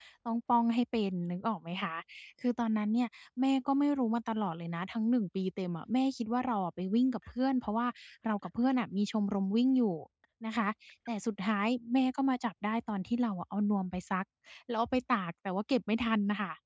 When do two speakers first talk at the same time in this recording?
none

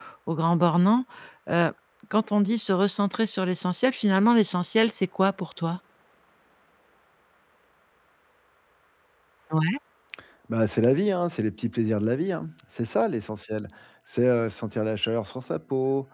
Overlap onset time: none

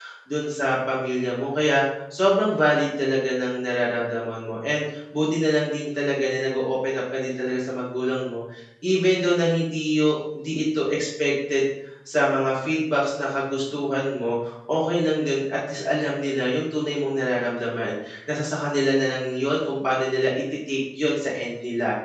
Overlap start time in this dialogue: none

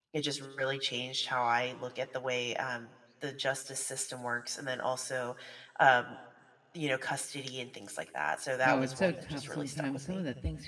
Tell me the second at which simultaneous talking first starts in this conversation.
9 s

